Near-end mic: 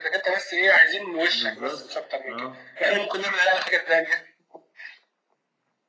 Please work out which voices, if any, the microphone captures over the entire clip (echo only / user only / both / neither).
both